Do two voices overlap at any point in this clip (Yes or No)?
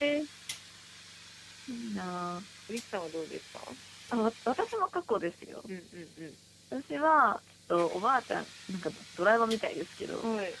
No